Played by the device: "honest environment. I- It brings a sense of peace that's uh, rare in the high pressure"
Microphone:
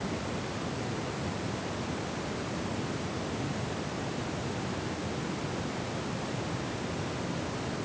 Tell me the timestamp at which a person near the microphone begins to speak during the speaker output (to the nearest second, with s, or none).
none